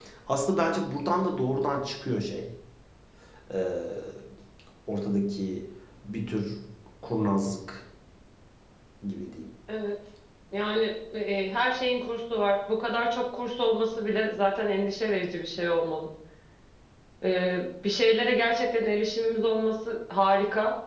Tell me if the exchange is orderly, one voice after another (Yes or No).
Yes